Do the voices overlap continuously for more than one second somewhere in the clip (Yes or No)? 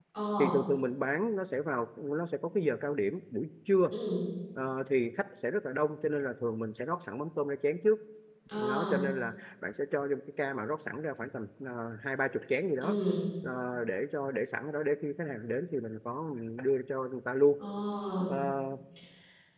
No